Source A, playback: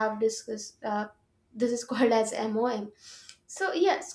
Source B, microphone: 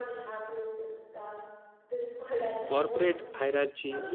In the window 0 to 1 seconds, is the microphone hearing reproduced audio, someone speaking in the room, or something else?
echo only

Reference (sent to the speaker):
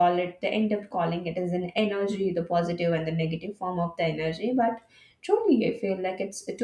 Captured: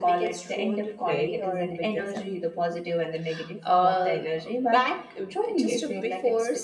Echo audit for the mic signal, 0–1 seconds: both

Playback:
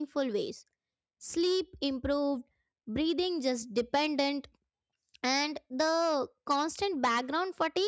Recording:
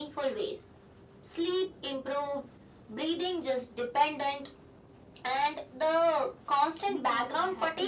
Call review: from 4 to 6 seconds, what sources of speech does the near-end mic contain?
echo only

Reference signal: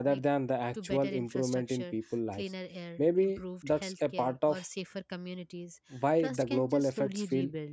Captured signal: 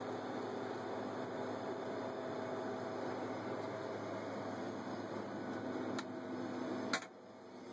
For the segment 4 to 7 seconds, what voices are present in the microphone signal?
neither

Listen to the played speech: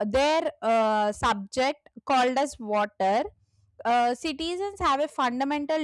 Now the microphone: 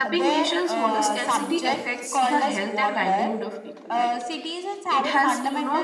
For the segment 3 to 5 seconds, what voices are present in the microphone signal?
both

